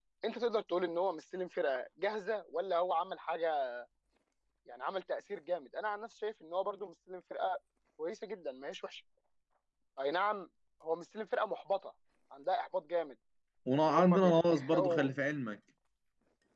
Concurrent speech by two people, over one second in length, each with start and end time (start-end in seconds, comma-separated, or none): 13.8-15.1